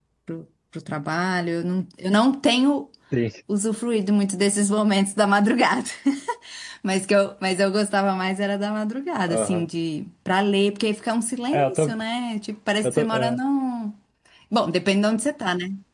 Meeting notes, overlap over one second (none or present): none